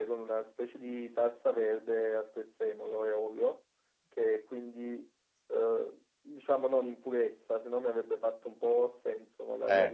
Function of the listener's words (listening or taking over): listening